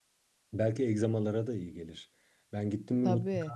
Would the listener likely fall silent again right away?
Yes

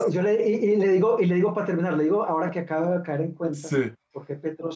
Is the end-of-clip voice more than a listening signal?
No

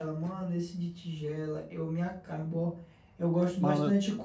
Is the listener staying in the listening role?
Yes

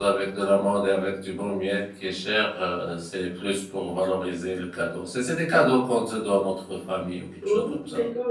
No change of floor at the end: No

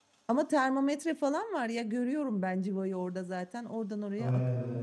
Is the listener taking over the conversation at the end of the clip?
Yes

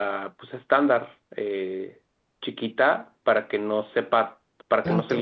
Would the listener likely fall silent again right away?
Yes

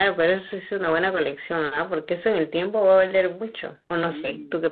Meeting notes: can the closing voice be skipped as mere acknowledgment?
No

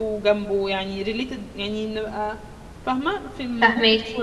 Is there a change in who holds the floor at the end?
Yes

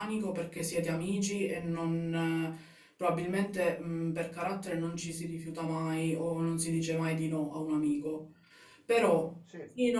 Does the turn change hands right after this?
No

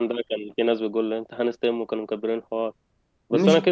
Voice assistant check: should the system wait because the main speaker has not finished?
Yes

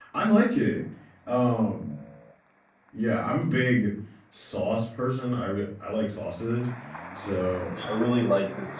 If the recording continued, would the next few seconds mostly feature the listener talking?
Yes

